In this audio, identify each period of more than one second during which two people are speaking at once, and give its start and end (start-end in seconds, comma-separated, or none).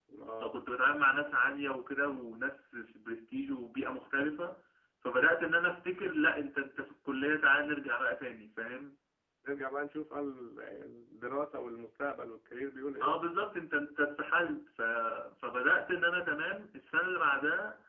none